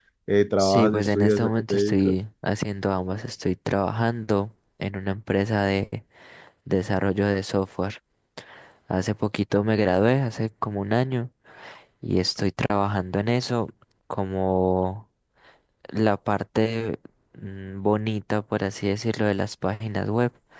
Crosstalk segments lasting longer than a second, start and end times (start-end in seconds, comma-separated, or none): 0.6-2.1